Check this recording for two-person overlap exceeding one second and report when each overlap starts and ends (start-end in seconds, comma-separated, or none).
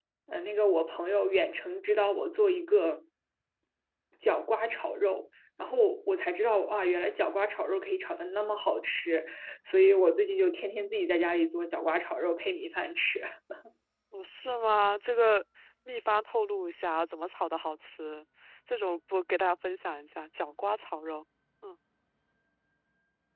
none